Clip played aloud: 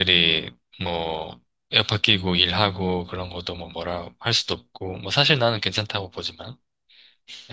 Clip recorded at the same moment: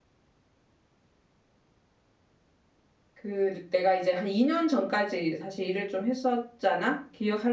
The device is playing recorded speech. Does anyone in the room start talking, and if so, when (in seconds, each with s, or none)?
3.1 s